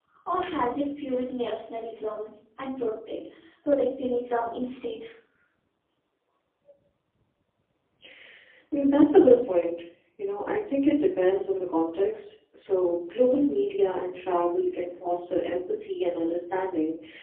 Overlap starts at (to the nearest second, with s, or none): none